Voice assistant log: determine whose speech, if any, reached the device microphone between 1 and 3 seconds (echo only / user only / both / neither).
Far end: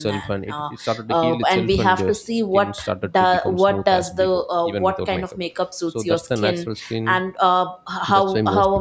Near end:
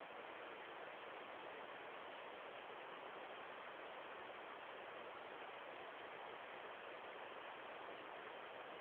neither